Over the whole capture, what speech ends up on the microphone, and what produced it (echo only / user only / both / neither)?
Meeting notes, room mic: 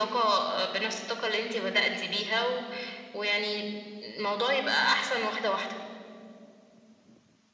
echo only